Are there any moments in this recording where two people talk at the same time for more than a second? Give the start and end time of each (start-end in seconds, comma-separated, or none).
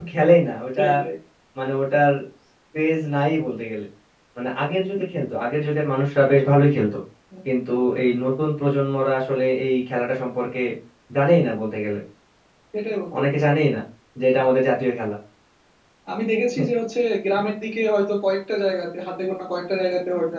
none